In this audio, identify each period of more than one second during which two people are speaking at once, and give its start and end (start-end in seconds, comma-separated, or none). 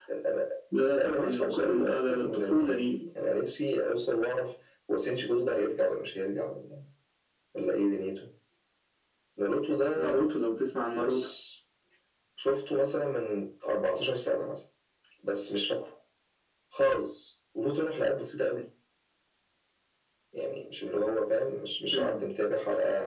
0.9-2.9